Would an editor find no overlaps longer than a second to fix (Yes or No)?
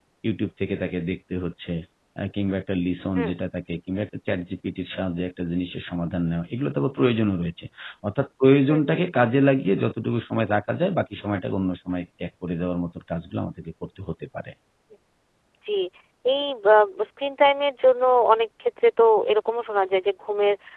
Yes